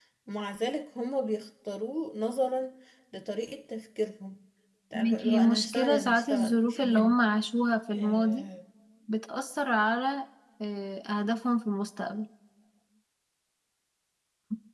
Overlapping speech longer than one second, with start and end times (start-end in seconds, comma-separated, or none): 5.0-7.2